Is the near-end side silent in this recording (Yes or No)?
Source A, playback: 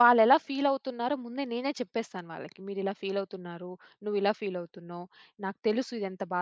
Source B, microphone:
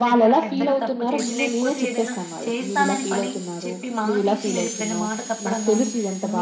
No